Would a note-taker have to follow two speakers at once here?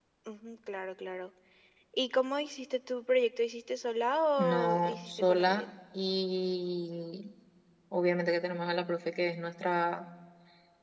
Yes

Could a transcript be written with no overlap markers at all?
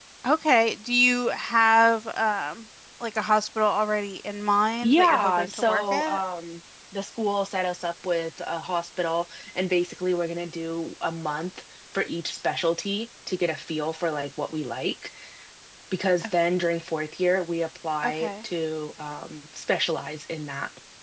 No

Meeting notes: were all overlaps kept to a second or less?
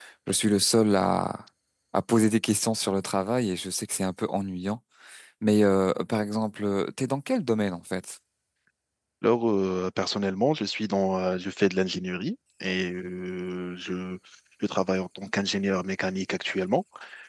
Yes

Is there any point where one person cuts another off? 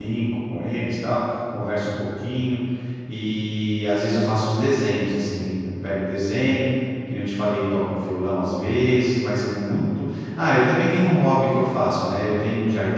No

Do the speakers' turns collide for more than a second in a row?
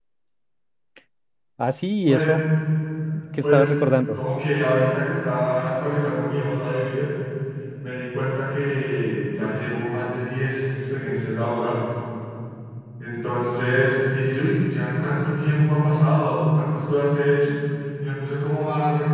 No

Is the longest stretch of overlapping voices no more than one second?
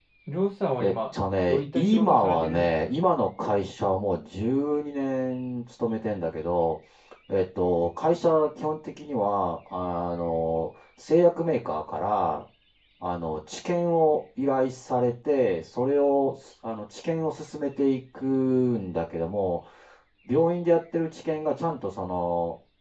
No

